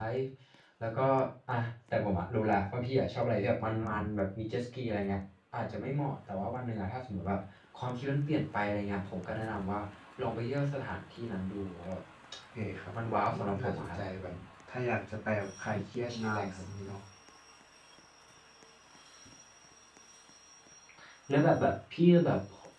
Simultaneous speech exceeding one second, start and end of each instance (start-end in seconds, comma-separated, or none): 12.6-14.0